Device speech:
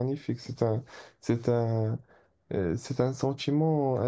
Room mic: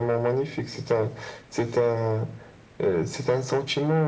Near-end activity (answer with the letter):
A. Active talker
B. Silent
B